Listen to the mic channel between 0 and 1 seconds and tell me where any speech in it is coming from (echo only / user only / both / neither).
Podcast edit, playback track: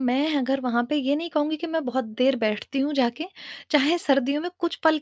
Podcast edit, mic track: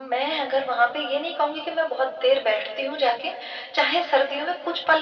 echo only